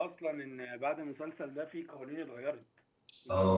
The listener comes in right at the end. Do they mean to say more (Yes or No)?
Yes